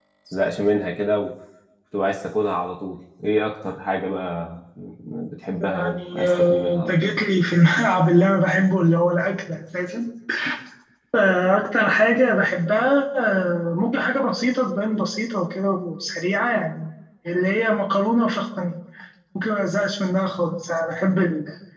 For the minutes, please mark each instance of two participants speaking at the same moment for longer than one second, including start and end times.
5.7-7.1

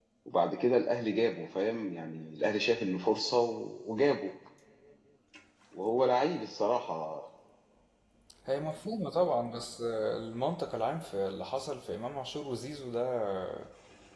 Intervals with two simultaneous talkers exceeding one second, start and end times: none

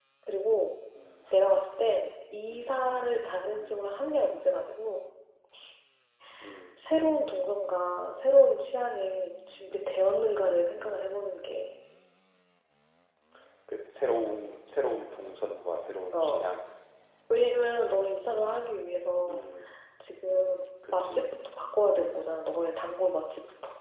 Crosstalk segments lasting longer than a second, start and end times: none

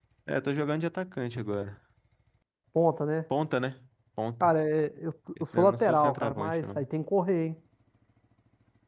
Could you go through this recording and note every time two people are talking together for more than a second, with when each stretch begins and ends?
5.6-6.8

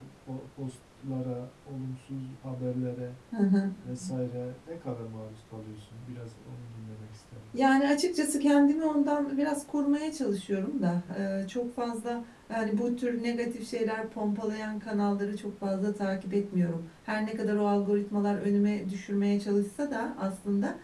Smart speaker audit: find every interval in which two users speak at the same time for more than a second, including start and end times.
none

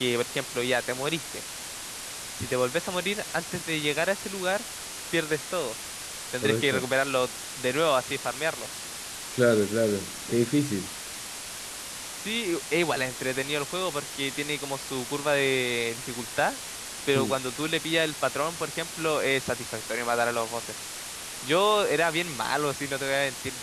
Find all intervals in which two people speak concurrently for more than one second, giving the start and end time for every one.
none

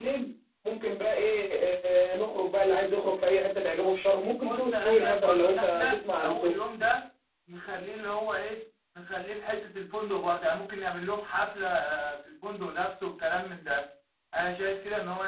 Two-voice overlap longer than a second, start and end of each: 4.4-6.5

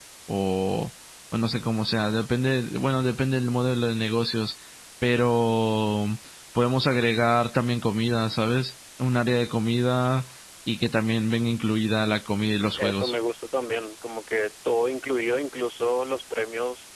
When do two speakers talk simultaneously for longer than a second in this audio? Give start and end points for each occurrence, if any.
none

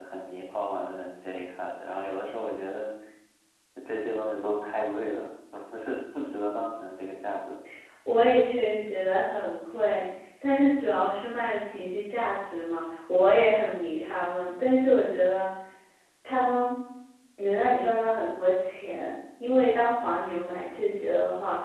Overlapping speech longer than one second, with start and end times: none

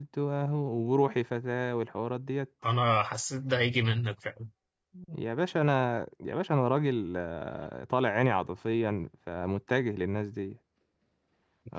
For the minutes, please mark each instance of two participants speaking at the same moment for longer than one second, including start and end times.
none

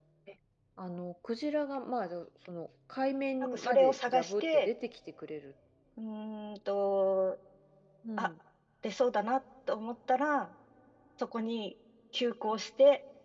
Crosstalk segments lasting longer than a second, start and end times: 3.4-4.7

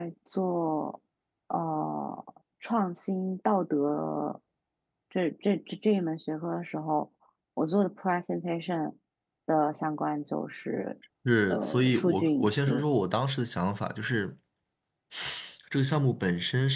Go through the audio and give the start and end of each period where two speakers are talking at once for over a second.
11.5-12.8

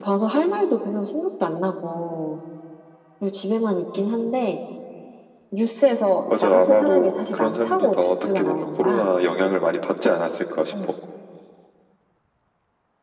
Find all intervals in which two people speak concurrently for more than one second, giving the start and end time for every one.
6.4-9.1

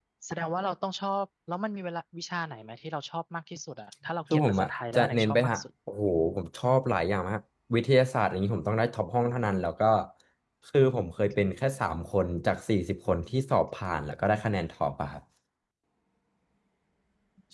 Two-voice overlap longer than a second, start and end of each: 4.3-5.6

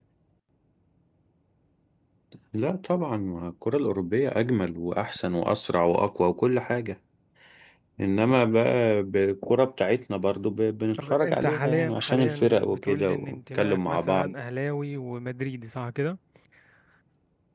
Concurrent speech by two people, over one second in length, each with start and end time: 11.0-14.3

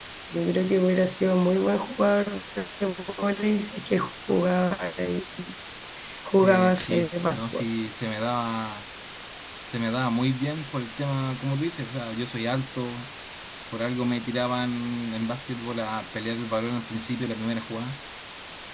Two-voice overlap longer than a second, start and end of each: 6.4-7.6

